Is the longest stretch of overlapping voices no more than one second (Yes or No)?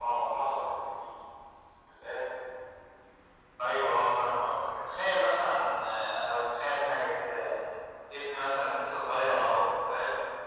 Yes